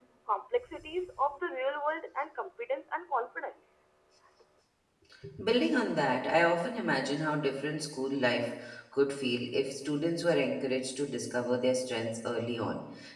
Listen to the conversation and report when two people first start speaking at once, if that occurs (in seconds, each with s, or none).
none